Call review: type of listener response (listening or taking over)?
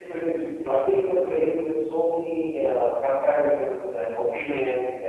listening